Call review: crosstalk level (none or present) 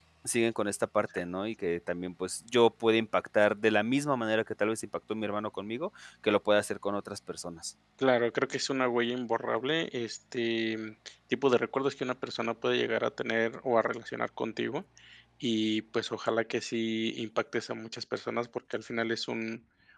none